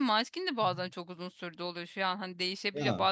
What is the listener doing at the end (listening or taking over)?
listening